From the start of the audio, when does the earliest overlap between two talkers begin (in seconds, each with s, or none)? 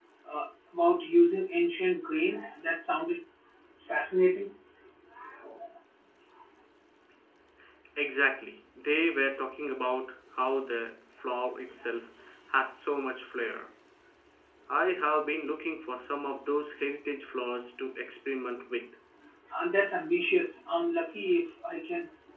none